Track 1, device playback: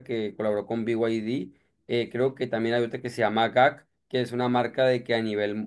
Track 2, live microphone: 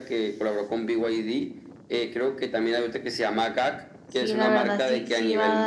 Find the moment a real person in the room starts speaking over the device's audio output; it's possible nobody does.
4.0 s

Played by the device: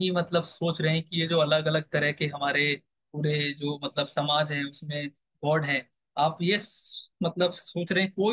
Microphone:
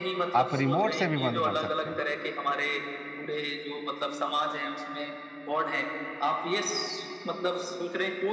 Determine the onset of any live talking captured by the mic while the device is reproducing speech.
0.4 s

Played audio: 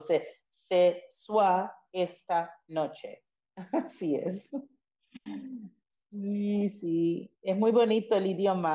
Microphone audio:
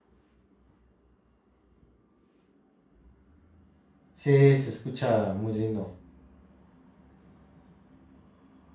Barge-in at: 4.1 s

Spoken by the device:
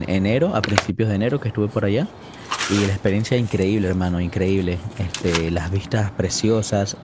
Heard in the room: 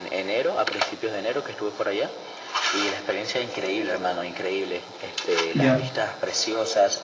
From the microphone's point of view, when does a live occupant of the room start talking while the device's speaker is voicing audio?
5.5 s

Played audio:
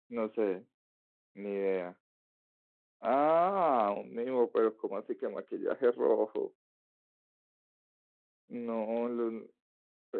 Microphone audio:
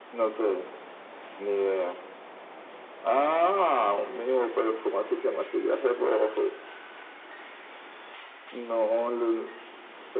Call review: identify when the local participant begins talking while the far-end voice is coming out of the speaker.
none

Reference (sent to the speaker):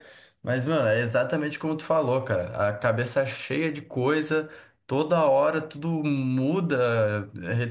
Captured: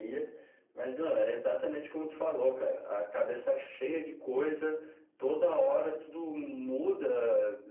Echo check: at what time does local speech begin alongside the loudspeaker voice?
none

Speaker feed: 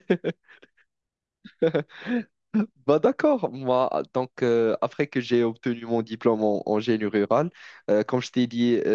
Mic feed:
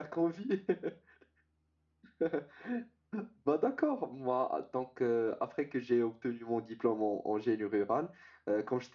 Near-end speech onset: none

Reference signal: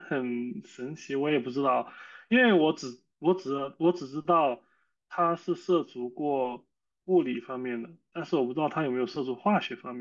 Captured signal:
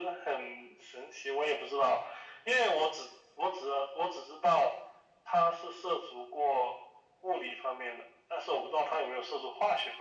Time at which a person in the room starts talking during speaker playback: none

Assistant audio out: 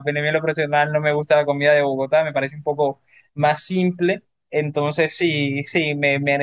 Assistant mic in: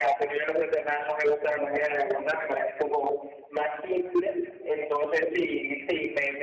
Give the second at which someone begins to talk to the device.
none

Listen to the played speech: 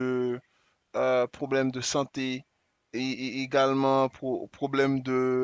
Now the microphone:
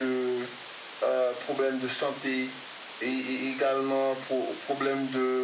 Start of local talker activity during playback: none

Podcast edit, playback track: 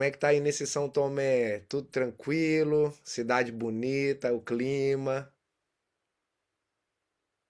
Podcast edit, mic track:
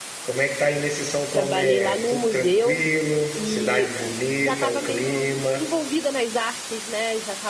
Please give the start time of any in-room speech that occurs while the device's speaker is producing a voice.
1.3 s

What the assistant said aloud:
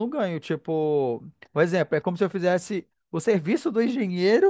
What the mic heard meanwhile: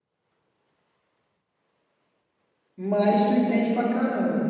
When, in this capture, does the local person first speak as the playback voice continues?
2.8 s

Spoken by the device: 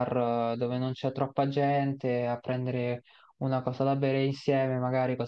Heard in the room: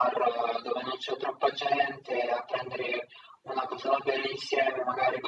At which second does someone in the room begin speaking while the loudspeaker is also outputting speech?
none

